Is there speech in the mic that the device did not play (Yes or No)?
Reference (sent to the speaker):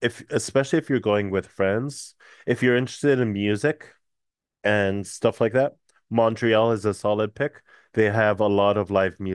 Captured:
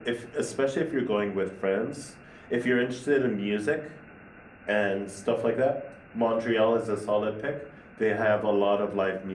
No